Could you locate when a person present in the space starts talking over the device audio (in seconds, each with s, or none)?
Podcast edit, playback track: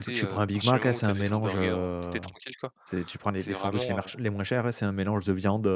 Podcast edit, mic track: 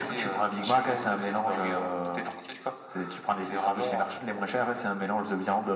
none